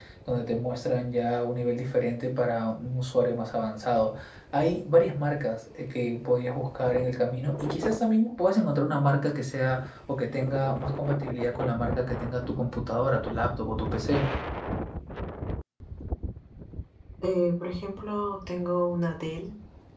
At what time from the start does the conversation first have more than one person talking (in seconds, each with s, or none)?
none